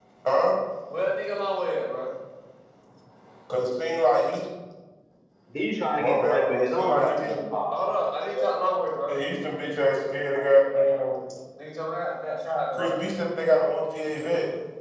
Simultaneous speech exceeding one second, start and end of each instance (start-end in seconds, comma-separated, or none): 6.0-7.4